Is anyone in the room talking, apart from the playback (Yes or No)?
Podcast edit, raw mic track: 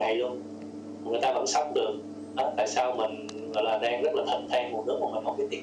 No